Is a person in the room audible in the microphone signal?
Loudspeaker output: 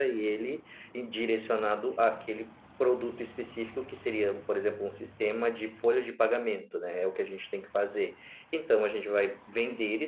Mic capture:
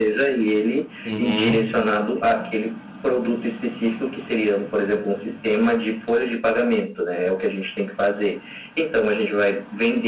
Yes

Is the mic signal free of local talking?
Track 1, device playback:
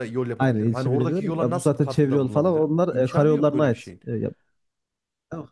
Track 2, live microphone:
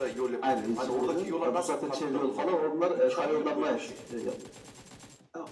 Yes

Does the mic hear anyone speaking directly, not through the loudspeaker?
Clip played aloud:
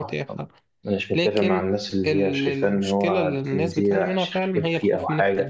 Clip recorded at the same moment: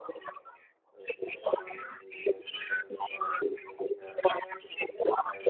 No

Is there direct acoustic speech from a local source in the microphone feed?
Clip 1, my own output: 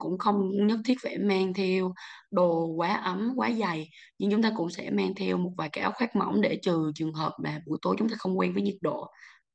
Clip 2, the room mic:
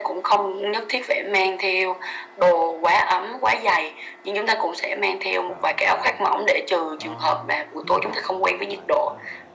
Yes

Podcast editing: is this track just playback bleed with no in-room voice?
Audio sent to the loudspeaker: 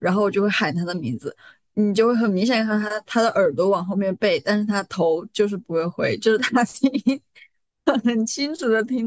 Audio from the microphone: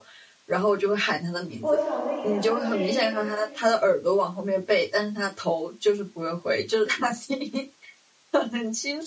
No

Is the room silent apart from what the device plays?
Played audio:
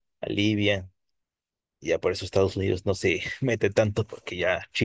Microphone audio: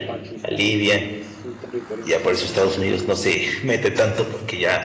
No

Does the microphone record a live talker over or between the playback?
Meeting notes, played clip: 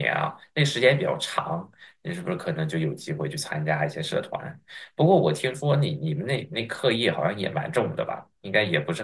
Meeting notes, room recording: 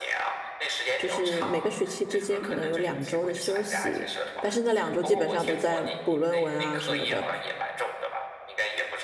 Yes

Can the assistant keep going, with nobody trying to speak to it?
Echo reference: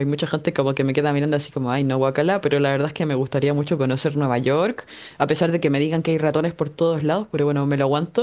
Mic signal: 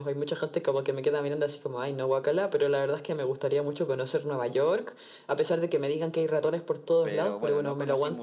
No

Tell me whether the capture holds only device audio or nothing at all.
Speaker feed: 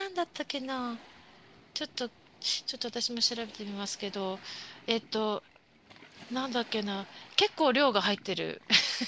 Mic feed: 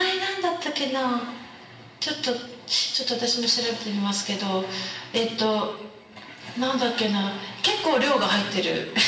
Yes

